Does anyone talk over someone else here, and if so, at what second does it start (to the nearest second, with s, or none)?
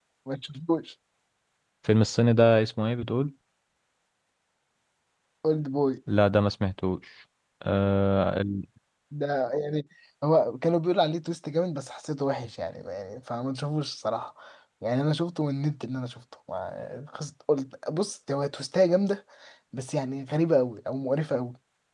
none